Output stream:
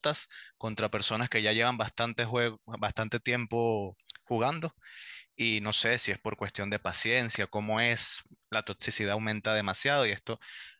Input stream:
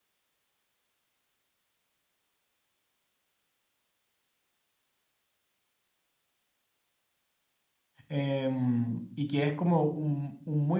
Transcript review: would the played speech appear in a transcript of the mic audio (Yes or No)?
No